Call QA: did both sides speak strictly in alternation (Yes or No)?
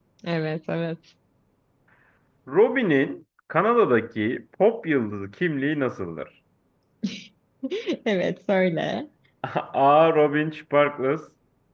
Yes